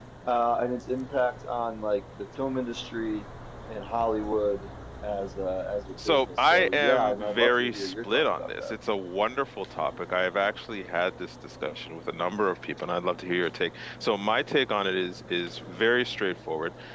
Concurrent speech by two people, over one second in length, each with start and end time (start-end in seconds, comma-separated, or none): 6.0-8.7